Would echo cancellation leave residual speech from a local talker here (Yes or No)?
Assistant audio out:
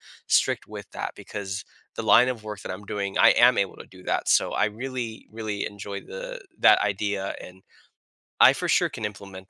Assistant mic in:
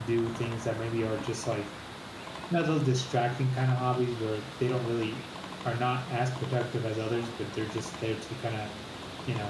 Yes